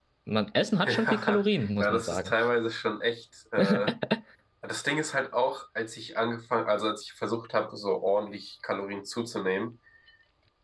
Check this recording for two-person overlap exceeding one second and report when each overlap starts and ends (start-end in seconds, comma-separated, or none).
0.8-2.3